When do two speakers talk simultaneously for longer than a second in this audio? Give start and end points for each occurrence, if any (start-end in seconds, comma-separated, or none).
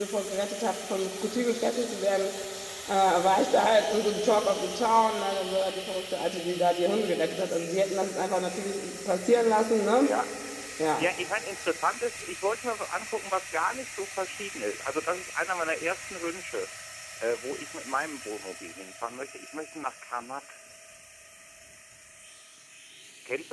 none